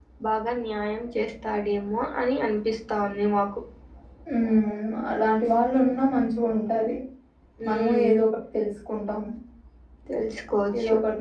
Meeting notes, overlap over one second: none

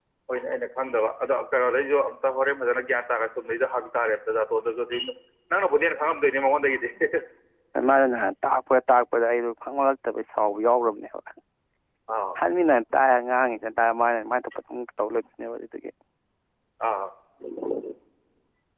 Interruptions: none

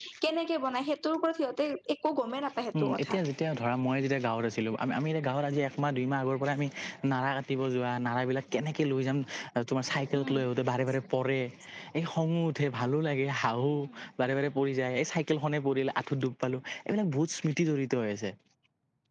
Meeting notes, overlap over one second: none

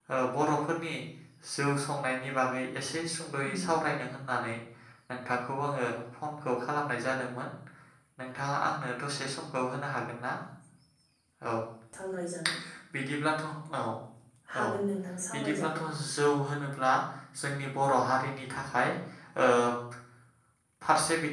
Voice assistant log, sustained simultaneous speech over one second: none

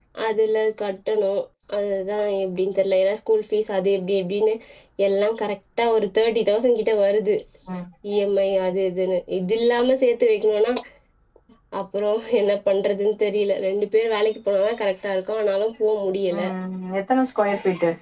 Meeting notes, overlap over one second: none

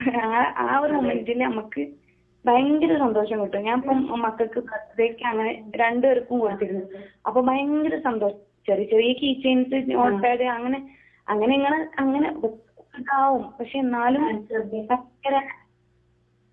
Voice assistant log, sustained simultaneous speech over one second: none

